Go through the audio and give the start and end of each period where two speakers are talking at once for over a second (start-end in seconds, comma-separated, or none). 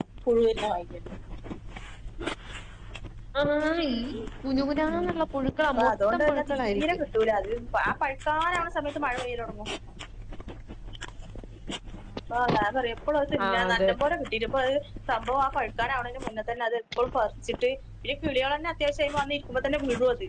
5.7-7.0